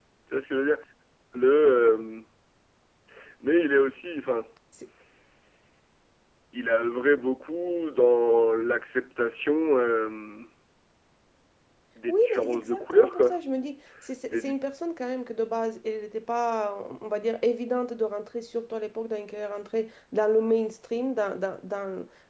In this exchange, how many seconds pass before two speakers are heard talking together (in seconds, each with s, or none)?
12.1 s